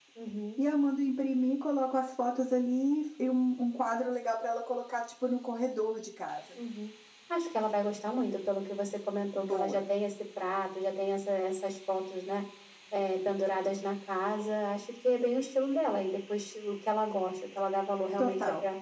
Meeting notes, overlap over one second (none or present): none